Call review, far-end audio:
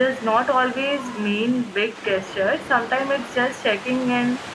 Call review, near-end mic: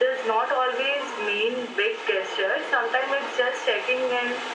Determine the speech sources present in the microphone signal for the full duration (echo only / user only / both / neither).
echo only